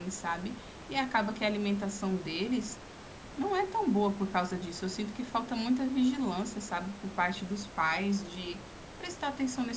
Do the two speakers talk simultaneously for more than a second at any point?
No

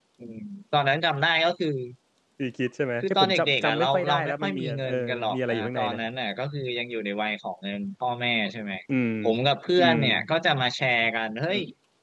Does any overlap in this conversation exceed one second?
Yes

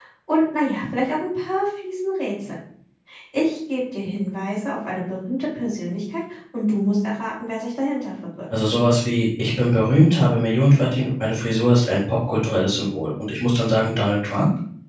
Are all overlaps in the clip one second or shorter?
Yes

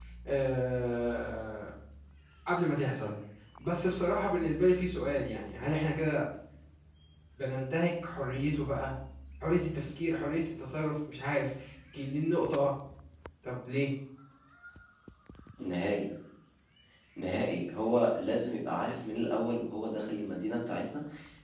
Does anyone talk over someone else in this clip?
No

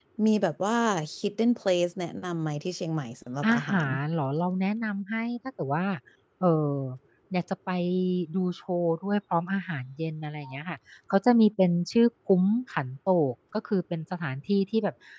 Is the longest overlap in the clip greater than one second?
No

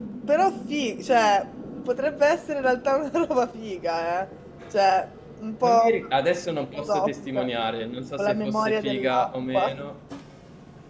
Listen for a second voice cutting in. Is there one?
Yes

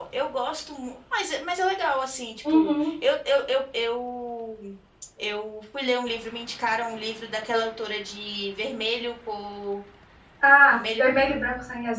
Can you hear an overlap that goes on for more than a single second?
No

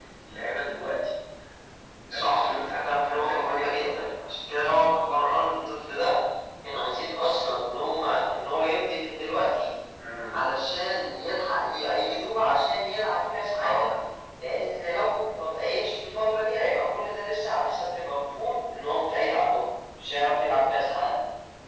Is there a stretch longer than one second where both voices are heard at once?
Yes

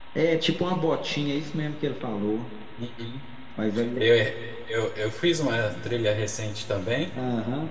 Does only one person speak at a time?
Yes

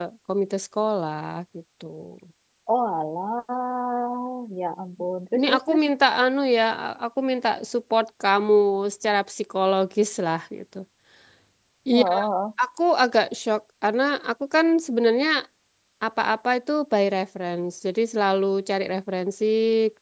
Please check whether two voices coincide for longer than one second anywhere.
No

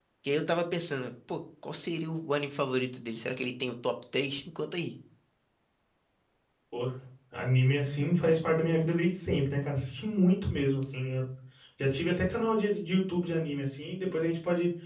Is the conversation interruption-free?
Yes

